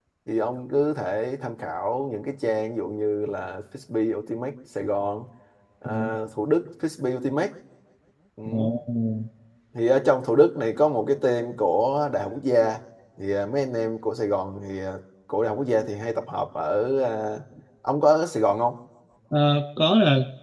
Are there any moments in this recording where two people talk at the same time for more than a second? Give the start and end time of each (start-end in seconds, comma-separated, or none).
none